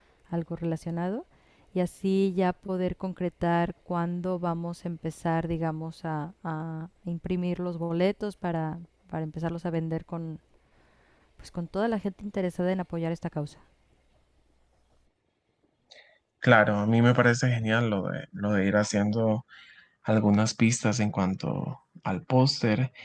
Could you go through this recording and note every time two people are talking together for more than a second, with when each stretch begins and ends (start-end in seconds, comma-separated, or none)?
none